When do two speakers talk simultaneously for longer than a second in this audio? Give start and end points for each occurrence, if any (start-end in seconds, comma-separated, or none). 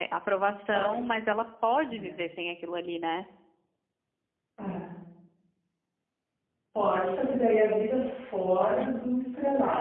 none